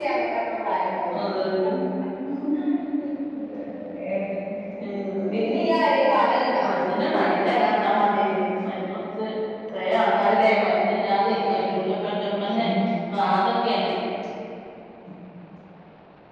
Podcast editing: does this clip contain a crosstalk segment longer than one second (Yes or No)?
No